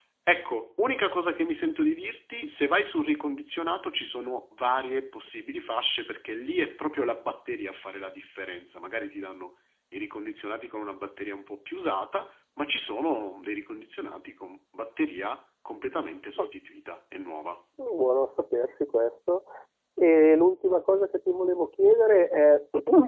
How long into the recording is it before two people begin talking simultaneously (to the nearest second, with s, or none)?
none